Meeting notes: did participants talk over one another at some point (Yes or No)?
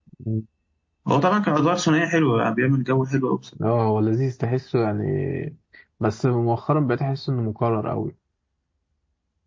No